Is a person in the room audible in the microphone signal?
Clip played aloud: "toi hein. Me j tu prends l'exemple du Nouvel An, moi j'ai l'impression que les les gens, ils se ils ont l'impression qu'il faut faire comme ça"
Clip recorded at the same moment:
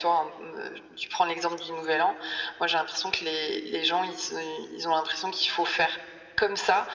No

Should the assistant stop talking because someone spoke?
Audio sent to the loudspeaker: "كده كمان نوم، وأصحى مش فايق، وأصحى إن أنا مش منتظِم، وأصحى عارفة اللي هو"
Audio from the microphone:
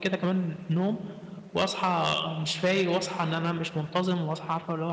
No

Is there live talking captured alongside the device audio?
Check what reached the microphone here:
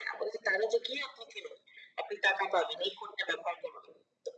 No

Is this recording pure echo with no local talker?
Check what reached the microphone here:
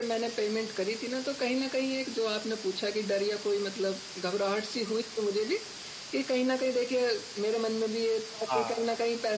No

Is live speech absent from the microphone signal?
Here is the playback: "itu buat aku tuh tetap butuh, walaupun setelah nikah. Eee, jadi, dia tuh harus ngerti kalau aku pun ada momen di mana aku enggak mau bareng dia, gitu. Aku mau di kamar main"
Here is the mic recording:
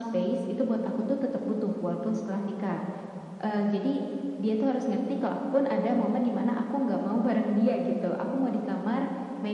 Yes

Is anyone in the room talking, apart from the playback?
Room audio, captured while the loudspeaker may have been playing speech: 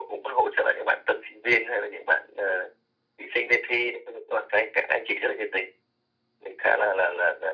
No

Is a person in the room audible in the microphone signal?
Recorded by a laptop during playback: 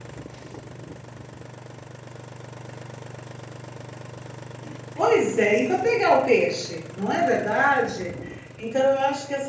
Yes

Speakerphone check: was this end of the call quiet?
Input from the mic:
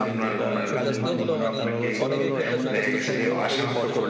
No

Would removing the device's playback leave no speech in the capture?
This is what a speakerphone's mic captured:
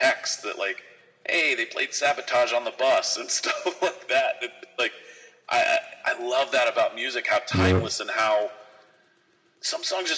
No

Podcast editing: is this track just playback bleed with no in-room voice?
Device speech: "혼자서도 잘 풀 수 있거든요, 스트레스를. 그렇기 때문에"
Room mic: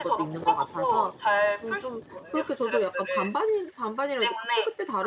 No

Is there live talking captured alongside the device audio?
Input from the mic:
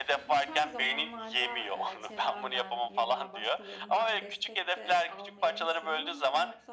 Yes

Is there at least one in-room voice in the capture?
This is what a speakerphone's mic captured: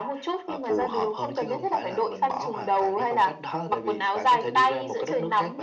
No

